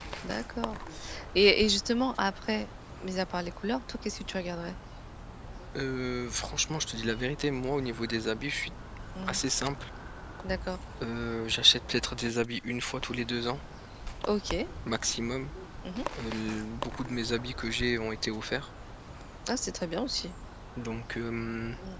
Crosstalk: none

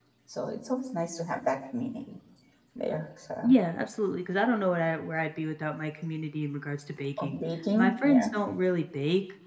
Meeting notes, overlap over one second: none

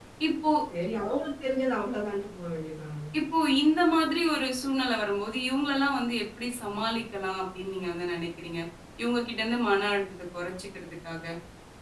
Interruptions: none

